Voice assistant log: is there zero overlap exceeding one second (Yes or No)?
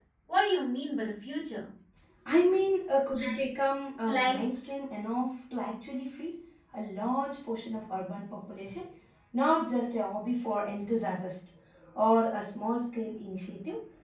Yes